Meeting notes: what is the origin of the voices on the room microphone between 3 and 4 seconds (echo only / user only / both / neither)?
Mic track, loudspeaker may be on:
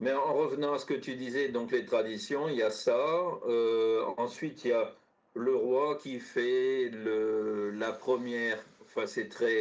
echo only